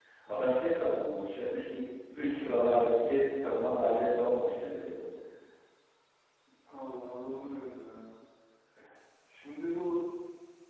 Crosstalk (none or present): none